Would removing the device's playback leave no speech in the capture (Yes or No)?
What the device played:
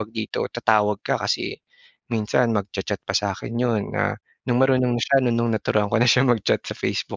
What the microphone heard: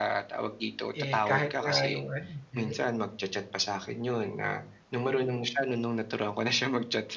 No